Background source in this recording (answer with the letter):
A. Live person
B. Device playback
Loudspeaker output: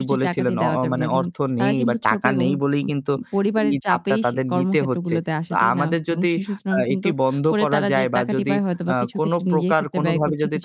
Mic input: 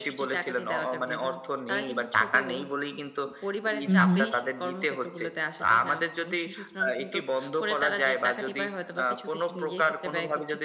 B